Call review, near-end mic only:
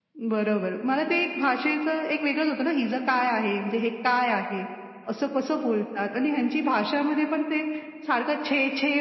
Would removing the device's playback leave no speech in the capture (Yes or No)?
Yes